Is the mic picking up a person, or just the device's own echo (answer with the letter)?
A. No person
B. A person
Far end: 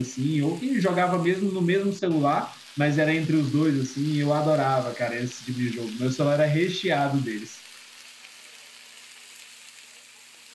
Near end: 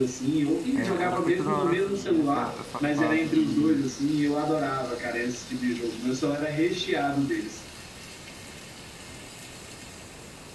B